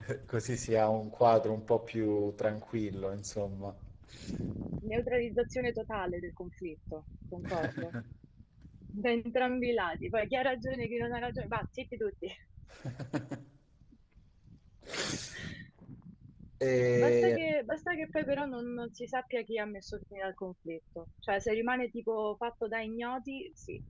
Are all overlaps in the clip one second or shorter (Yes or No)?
Yes